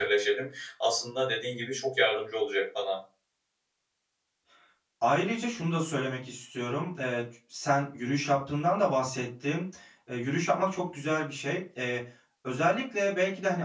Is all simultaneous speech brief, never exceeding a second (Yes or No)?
Yes